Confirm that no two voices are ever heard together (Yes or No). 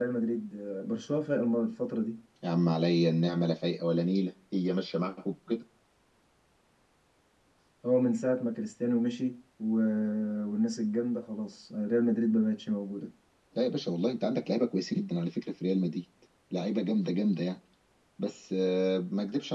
Yes